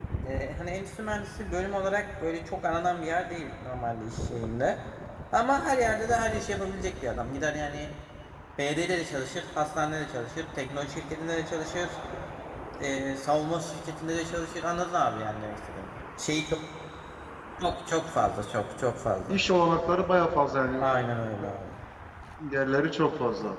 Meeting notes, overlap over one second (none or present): none